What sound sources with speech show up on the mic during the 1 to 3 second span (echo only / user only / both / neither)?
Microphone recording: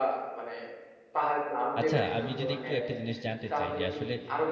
both